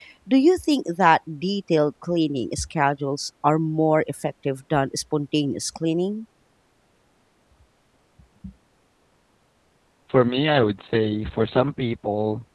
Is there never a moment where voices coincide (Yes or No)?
Yes